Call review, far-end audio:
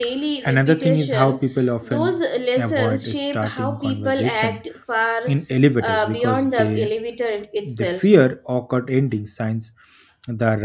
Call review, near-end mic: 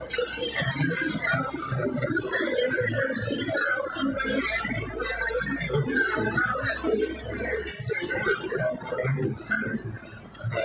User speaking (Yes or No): No